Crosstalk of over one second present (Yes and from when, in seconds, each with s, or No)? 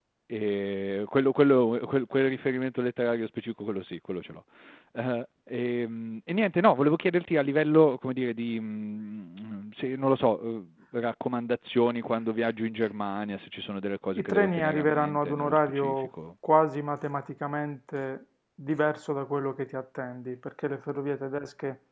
Yes, from 14.2 s